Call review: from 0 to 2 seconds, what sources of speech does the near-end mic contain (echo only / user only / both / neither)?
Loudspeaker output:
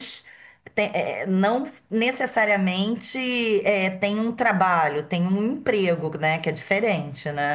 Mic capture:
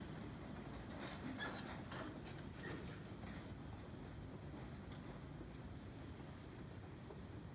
neither